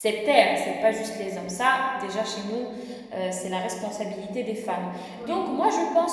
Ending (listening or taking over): listening